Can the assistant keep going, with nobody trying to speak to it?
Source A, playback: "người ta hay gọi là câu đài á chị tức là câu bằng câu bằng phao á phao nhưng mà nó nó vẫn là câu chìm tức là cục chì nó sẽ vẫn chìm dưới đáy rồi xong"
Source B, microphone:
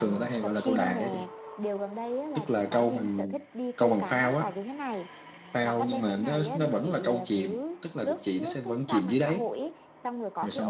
No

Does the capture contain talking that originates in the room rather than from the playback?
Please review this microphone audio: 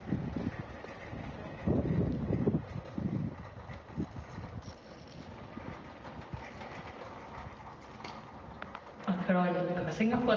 Yes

